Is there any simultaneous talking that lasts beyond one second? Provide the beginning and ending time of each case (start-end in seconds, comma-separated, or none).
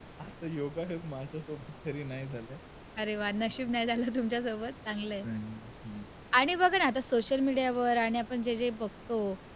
none